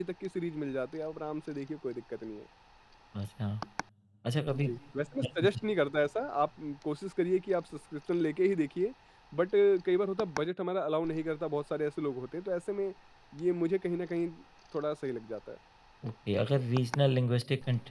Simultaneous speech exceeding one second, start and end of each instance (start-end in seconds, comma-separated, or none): none